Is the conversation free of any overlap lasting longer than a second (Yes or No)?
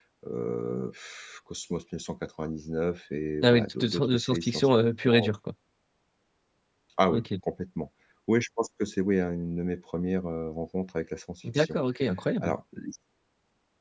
No